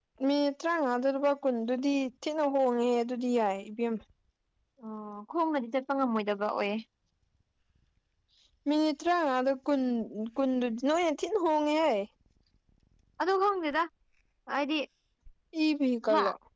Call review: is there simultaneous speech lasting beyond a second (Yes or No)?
No